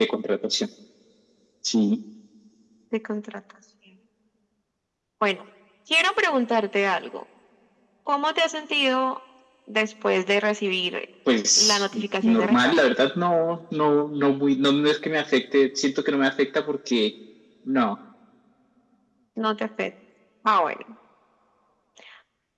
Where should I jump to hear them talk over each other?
11.6 s

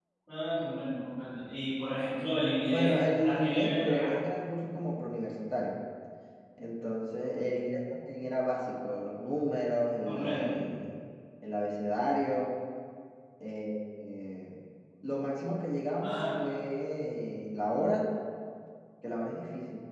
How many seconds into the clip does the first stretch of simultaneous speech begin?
2.7 s

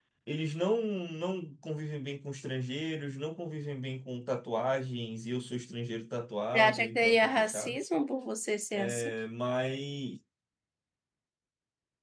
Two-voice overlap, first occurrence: 6.5 s

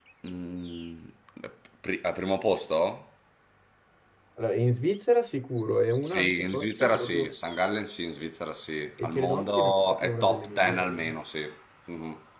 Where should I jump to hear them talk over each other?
6.0 s

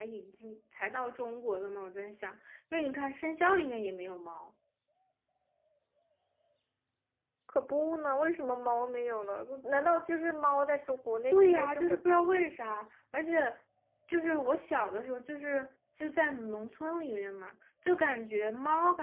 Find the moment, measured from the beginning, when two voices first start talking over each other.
11.3 s

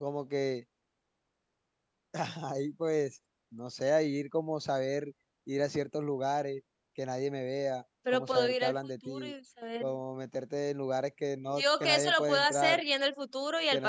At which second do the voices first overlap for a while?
8.1 s

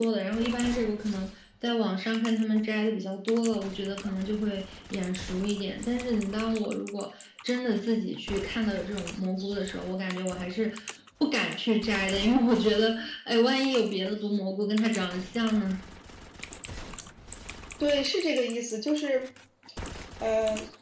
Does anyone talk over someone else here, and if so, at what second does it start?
none

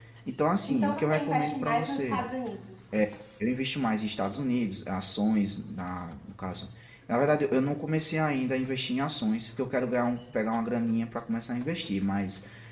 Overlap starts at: 0.7 s

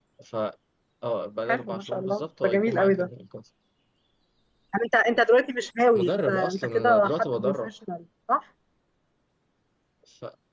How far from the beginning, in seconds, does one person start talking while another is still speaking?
1.5 s

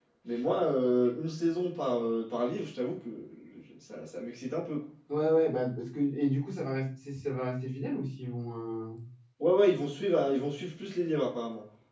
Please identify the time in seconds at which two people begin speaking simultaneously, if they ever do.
none

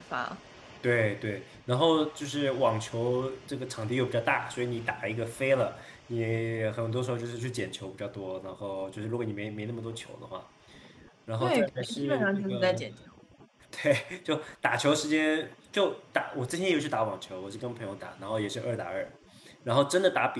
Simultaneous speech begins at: 11.4 s

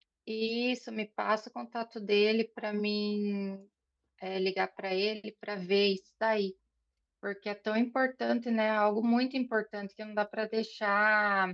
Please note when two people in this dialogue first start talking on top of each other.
none

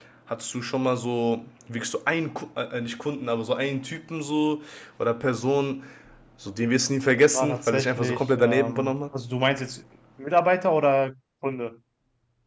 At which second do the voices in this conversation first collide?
7.3 s

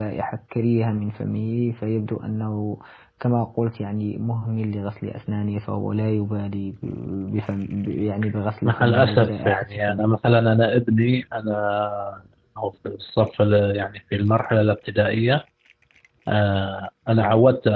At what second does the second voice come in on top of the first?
8.6 s

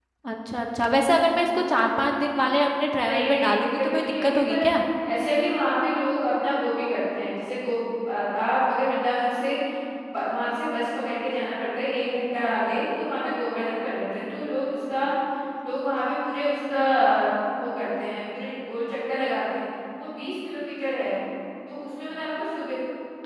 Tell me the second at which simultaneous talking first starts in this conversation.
3.1 s

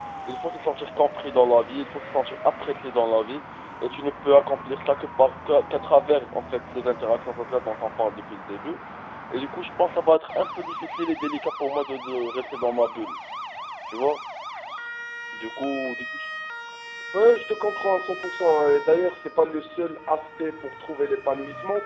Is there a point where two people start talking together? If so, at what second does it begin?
none

